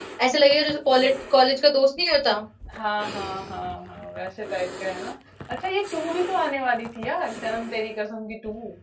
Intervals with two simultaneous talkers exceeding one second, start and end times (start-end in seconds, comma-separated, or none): none